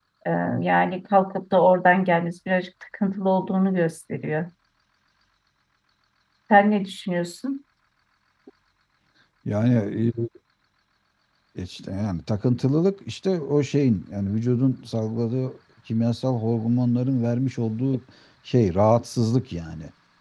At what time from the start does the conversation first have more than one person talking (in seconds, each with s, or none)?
none